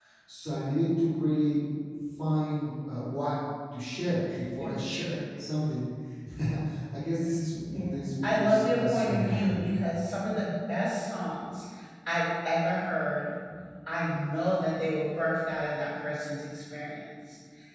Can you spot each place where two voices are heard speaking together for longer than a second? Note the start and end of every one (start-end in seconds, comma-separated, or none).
7.7-9.6